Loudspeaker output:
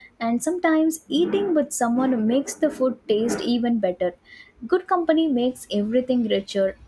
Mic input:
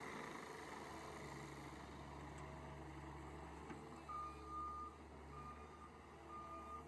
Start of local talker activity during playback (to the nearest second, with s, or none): none